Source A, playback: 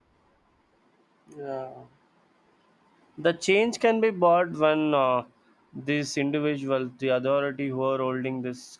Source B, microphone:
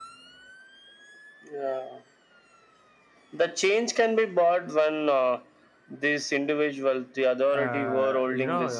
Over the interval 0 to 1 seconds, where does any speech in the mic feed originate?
neither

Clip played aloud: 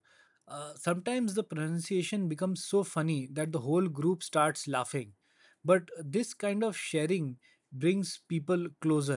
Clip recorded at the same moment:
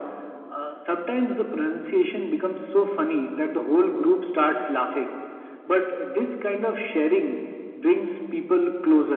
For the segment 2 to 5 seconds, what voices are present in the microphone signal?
echo only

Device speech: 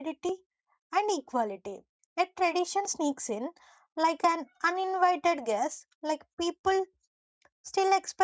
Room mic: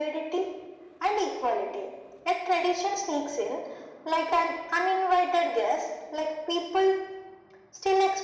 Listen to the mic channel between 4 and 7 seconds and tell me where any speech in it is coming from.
echo only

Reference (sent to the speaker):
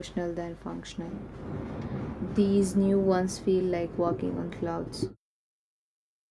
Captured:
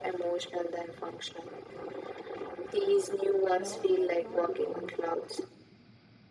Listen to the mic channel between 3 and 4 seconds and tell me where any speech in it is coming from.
both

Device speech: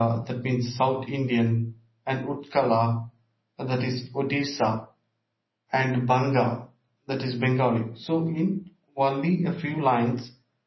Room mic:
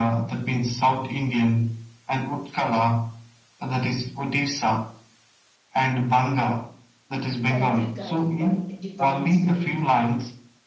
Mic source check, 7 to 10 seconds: both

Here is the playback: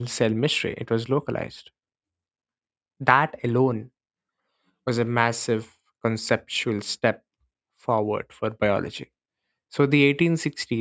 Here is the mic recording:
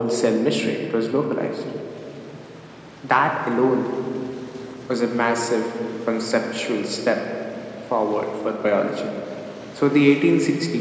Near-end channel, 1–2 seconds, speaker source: echo only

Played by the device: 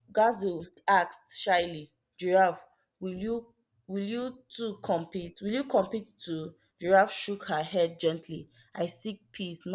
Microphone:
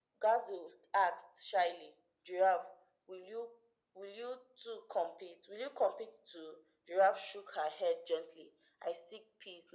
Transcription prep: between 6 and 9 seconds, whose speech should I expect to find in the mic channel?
echo only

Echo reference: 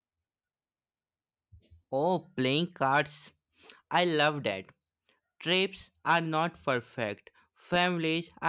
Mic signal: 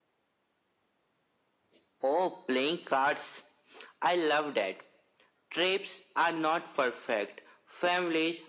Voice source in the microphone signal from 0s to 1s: neither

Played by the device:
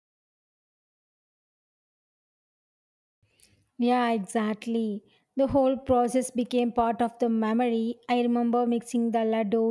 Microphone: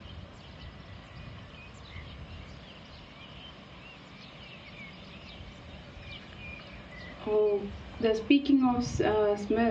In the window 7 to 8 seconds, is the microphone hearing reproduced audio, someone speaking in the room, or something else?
user only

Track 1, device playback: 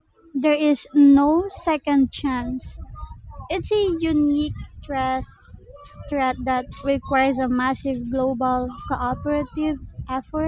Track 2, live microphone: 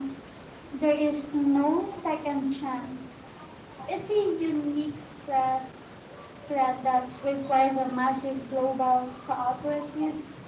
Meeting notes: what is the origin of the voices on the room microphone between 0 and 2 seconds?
echo only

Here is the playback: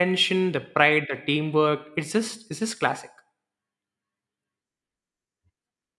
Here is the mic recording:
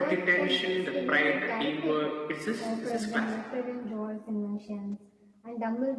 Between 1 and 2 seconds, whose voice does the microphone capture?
both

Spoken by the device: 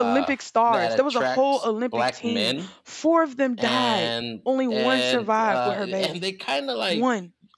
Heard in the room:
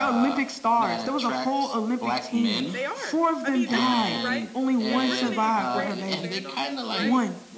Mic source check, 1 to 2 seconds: echo only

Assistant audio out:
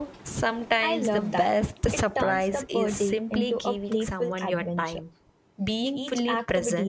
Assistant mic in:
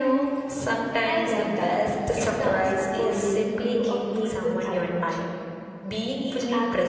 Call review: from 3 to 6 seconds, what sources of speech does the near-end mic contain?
echo only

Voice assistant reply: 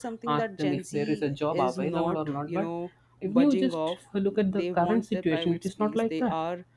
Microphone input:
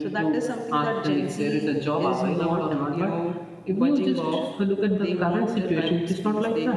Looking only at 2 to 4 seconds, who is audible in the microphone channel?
echo only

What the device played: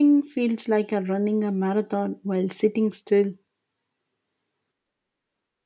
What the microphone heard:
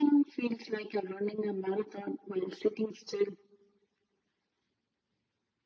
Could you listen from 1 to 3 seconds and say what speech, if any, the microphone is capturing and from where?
echo only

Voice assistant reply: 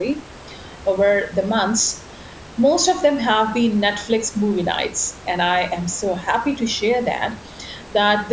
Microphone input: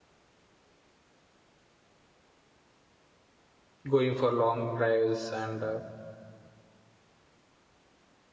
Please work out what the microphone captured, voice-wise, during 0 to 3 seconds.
neither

